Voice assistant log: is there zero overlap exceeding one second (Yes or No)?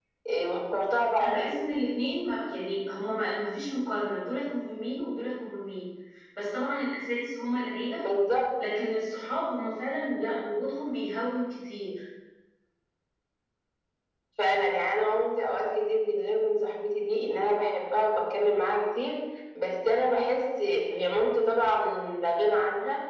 Yes